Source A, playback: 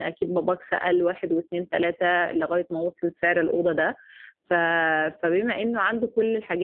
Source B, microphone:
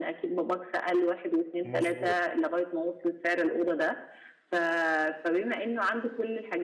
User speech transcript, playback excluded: مظبوط

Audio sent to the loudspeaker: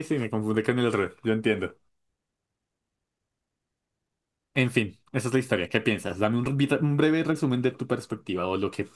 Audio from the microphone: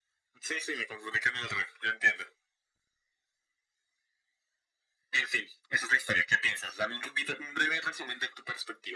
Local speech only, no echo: none

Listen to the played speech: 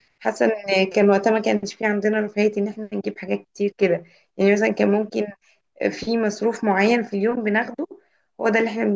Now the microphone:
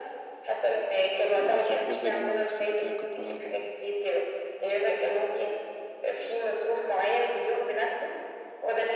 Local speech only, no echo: يعني عارفه حاجات زي جمع واكسب وكده كنت بلعبها برضه

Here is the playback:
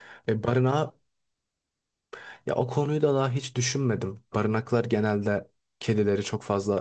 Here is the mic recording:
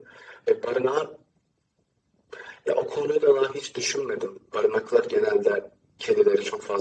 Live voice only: none

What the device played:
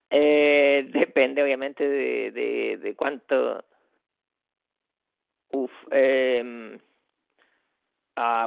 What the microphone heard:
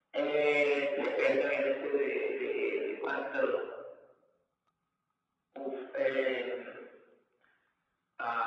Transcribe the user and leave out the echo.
none

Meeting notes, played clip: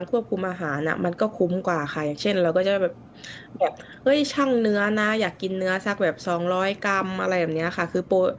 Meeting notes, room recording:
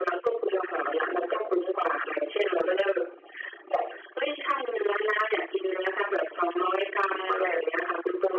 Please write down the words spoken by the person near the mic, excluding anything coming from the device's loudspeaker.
none

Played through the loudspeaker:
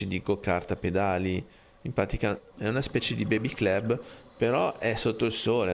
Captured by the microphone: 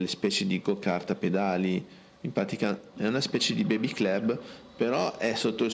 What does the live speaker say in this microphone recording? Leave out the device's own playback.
none

